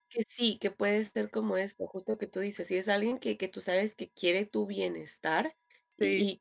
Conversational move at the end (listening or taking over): listening